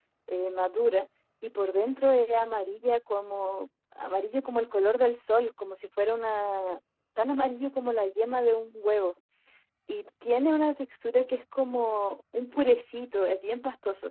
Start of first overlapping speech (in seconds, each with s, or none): none